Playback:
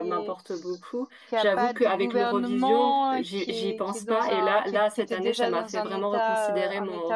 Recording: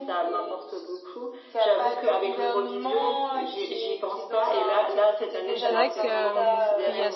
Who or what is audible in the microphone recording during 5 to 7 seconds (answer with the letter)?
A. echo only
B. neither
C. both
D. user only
C